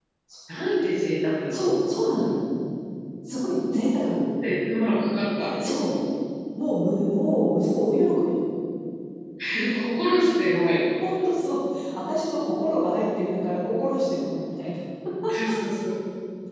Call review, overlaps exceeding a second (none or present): none